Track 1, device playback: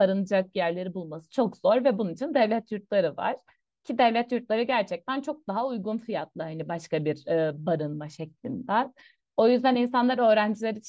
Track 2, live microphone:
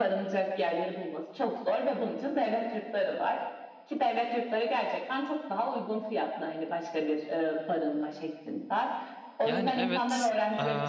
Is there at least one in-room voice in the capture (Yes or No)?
Yes